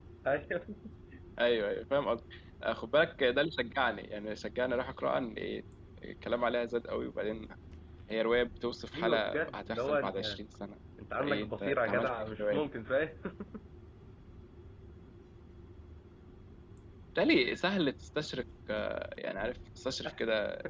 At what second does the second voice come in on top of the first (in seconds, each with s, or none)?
9.0 s